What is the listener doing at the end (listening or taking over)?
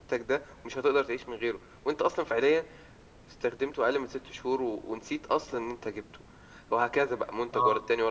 listening